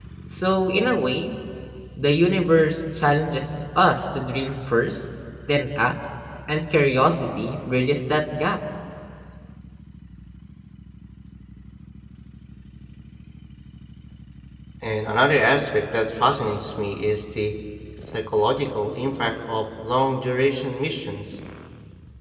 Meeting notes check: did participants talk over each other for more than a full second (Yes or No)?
No